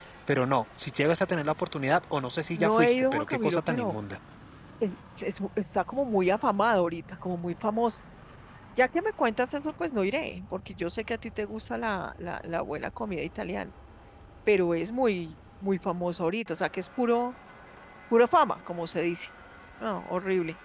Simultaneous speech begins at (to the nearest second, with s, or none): 3 s